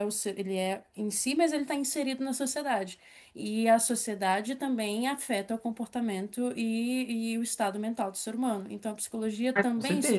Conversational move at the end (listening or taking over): listening